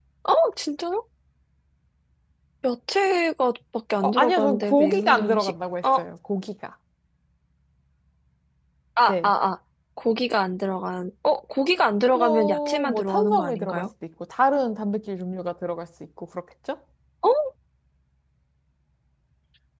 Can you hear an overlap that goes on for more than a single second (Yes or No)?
Yes